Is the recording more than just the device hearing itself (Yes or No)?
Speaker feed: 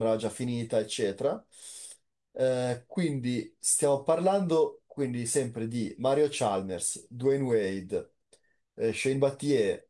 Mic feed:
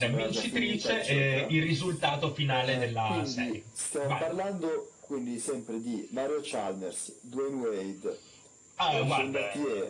Yes